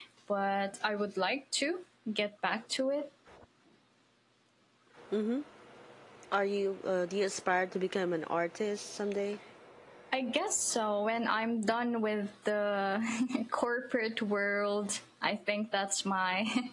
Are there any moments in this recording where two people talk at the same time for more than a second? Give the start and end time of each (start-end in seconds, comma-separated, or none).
none